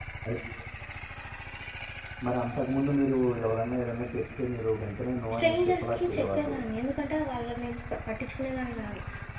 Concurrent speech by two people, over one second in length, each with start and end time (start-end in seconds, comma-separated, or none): 5.3-6.5